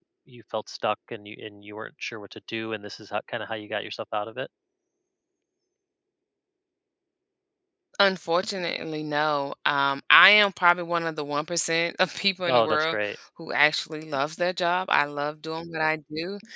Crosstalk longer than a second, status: none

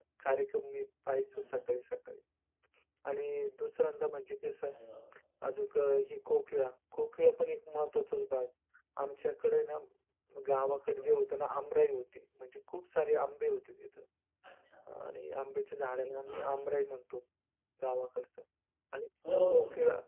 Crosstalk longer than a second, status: none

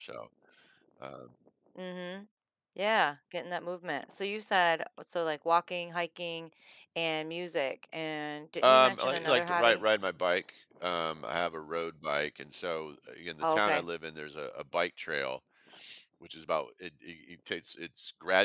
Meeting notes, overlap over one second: present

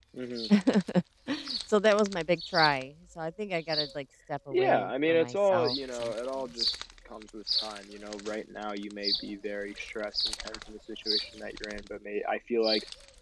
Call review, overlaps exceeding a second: present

